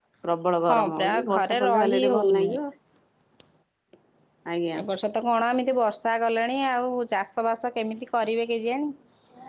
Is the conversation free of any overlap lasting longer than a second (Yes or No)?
No